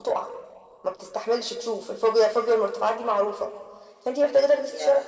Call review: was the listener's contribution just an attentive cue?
Yes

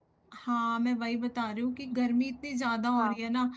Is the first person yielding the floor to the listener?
No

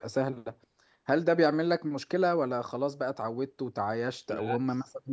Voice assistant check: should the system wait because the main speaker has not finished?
Yes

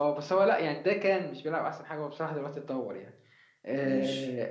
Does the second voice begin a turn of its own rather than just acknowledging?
No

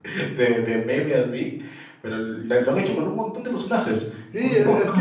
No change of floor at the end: No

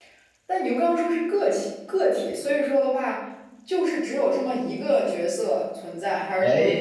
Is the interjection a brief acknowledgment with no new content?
Yes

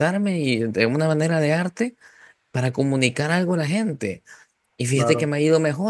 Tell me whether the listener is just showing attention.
Yes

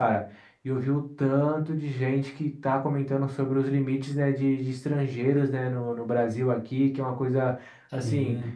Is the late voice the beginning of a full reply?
No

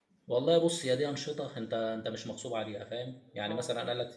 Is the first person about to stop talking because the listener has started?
No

